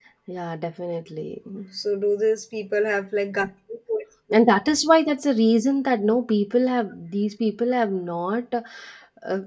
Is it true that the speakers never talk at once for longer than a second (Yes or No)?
Yes